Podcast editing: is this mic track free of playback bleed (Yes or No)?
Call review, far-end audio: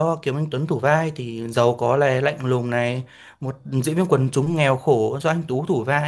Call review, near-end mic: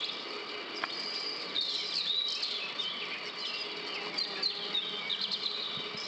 Yes